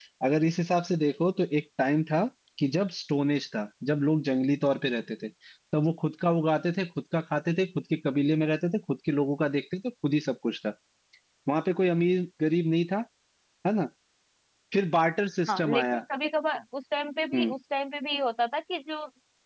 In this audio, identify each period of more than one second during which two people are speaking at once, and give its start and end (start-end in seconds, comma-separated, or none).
none